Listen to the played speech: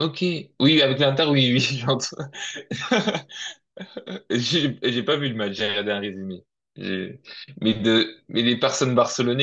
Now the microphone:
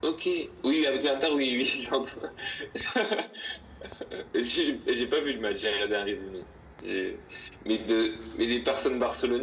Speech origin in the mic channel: echo only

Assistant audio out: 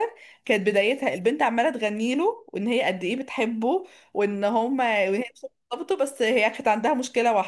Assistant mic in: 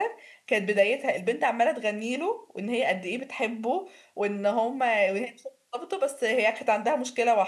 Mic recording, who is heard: echo only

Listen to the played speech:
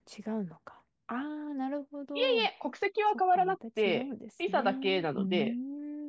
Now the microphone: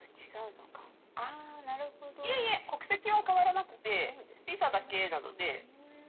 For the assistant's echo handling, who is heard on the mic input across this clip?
echo only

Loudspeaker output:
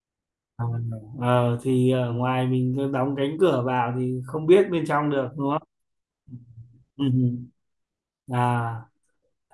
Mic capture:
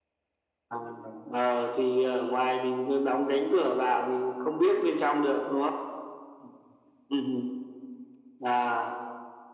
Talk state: echo only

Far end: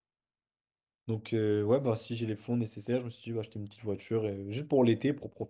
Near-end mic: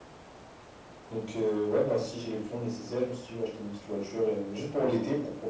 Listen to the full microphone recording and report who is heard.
echo only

